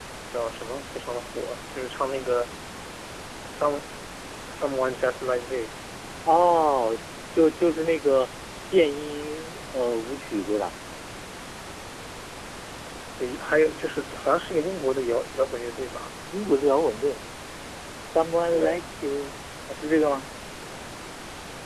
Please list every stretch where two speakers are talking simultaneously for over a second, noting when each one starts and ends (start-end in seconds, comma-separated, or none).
none